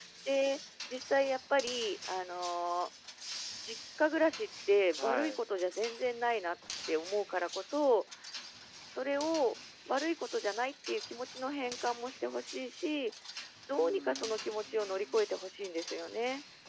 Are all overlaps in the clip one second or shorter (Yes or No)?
No